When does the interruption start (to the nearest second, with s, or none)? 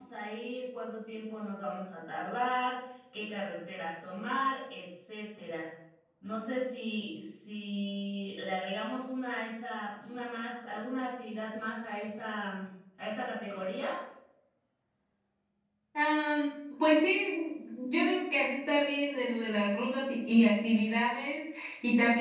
none